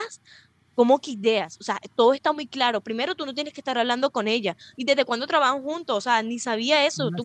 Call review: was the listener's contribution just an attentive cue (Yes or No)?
No